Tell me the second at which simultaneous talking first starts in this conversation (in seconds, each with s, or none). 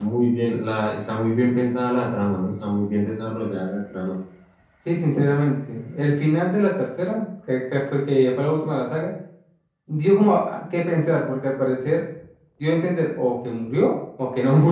none